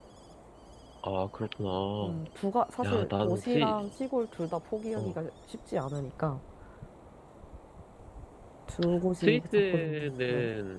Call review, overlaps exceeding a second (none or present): present